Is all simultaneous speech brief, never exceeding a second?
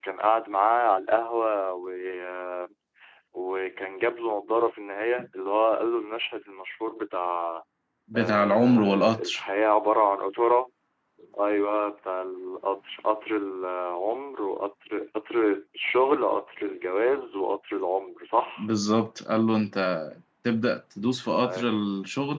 No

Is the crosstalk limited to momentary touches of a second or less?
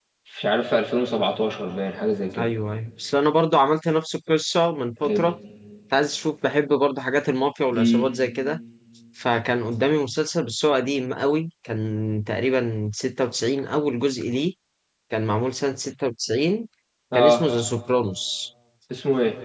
Yes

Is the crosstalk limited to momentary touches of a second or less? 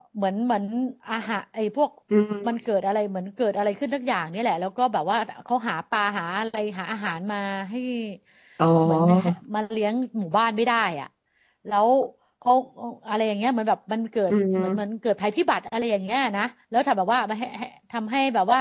Yes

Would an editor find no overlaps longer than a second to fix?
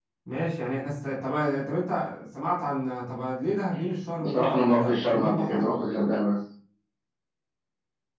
No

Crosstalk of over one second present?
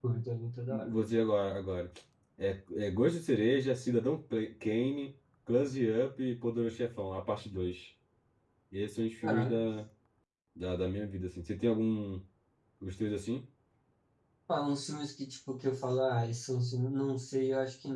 No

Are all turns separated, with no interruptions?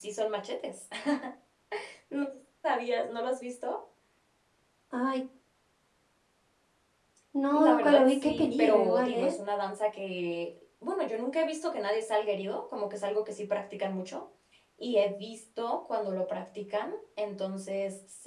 No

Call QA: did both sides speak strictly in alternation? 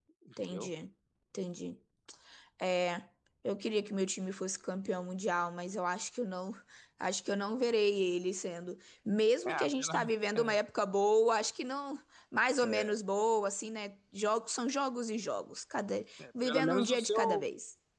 No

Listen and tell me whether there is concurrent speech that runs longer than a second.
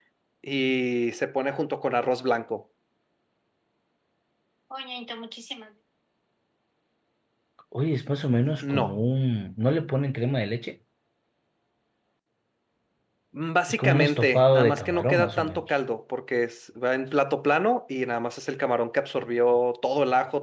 Yes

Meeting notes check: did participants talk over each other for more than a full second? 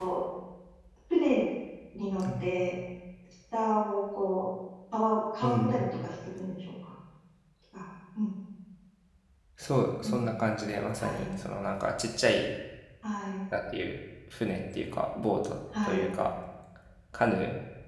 No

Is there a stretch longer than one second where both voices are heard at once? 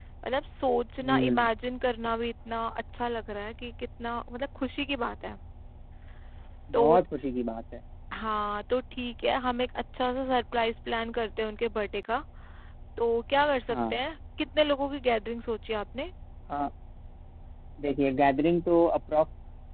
No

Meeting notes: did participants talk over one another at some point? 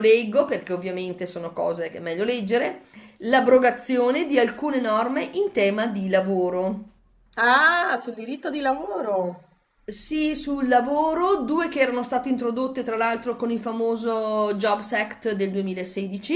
No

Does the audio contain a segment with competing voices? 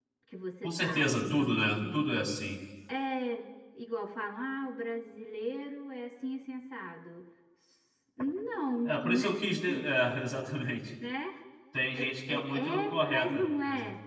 Yes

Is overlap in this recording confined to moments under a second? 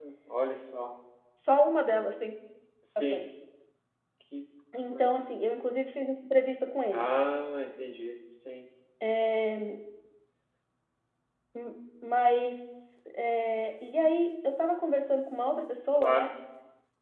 Yes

